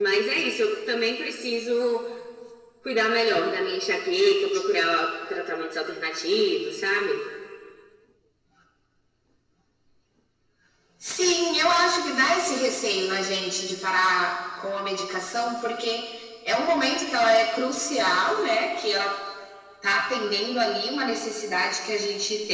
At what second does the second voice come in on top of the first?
none

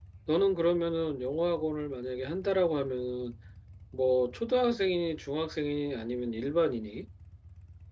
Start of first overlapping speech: none

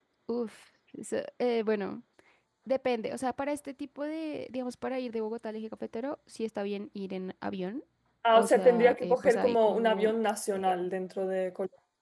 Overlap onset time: 8 s

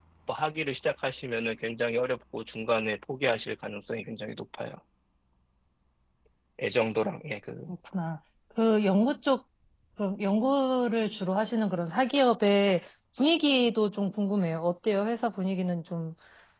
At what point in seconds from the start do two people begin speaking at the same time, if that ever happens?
none

